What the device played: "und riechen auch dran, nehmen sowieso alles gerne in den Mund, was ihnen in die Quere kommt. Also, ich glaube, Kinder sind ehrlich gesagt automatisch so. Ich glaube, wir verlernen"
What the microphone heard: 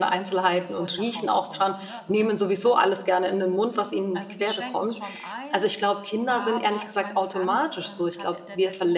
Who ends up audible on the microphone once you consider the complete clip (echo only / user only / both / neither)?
both